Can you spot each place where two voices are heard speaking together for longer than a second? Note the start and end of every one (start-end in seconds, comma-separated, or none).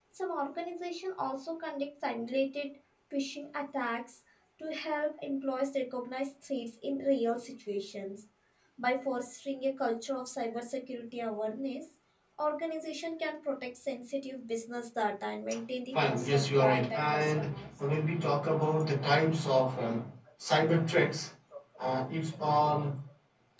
15.9-17.6